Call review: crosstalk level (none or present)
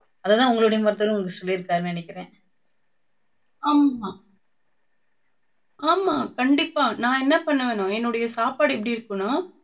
none